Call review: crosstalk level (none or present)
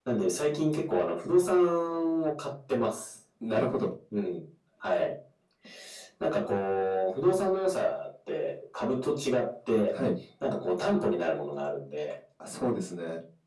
none